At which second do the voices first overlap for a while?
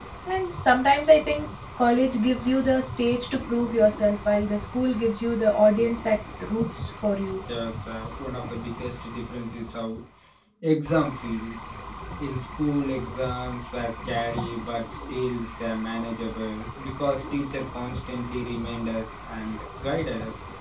none

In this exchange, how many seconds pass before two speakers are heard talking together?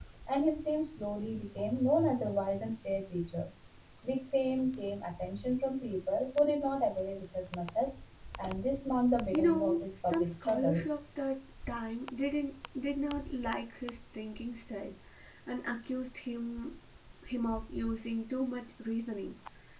9.3 s

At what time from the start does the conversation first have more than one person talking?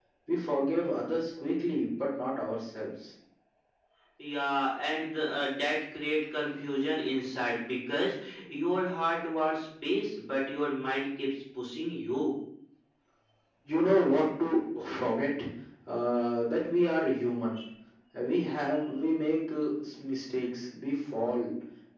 none

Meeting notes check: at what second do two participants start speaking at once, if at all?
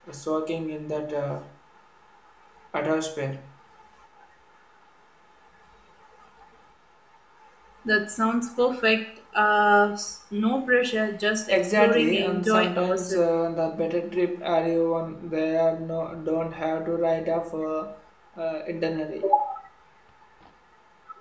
11.5 s

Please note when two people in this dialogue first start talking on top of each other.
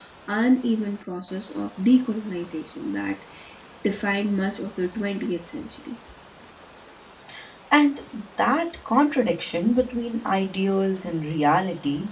none

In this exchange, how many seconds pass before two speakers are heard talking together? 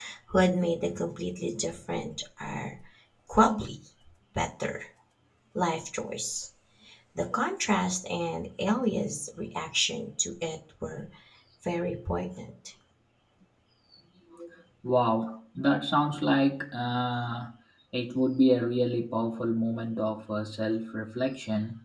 none

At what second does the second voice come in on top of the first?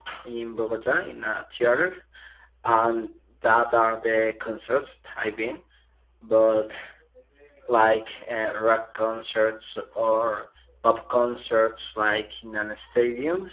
none

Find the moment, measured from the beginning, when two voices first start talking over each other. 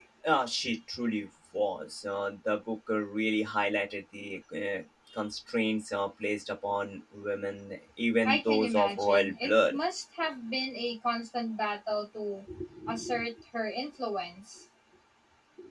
8.2 s

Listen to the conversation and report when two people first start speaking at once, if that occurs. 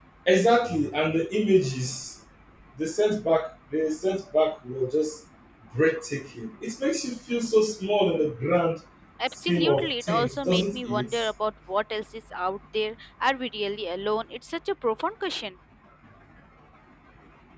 9.5 s

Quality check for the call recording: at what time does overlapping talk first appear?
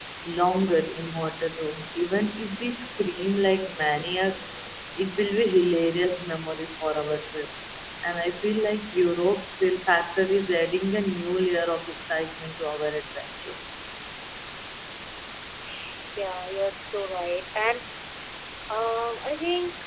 none

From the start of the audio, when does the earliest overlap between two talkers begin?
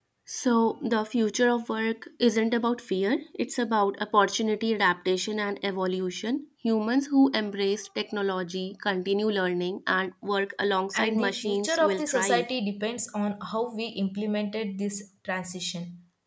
10.9 s

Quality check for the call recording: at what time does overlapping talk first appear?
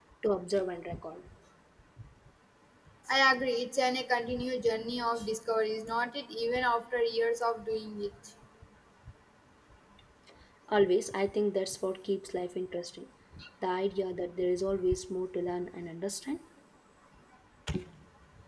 none

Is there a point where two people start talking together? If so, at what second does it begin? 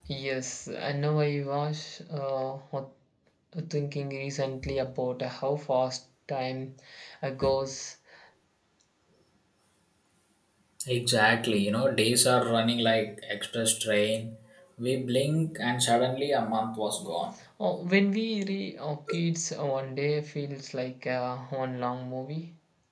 none

